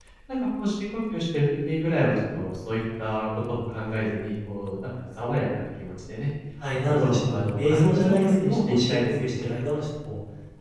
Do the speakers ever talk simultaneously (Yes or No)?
Yes